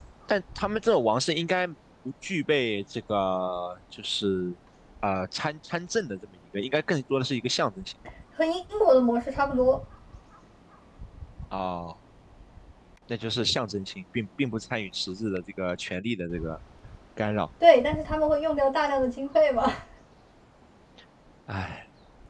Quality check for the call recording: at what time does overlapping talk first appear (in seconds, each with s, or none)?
none